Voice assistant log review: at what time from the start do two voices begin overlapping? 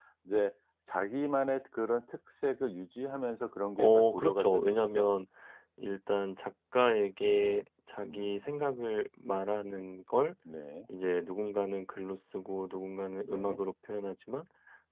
3.8 s

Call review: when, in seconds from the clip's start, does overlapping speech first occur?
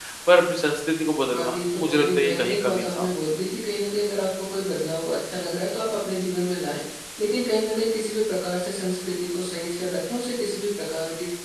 1.3 s

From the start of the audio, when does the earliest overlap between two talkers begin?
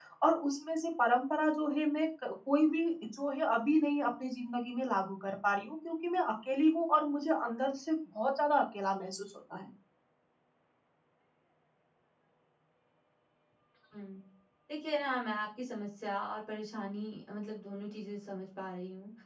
none

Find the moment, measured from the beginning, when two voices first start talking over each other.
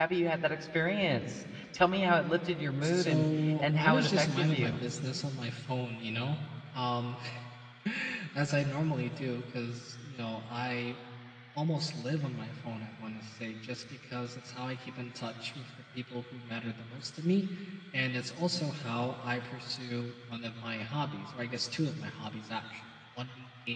2.8 s

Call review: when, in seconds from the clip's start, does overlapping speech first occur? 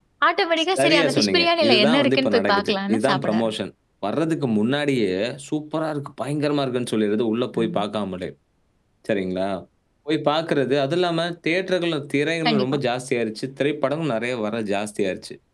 0.8 s

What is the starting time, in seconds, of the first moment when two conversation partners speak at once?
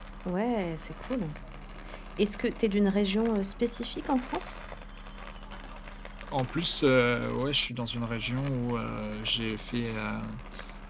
none

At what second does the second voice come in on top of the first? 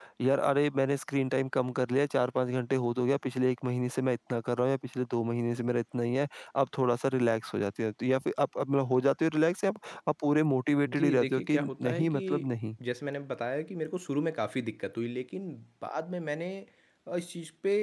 10.8 s

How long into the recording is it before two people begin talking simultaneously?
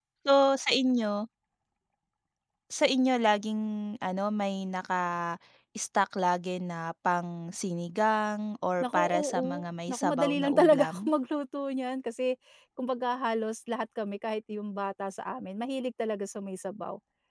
8.8 s

